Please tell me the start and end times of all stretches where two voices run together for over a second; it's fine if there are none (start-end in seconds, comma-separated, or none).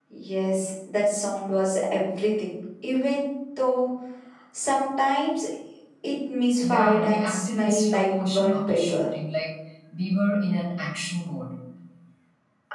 6.6-9.1